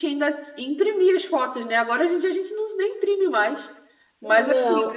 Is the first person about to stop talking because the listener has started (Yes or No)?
No